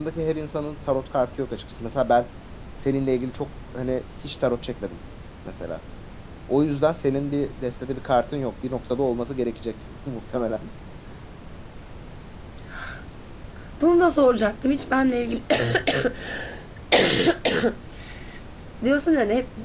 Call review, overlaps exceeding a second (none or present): none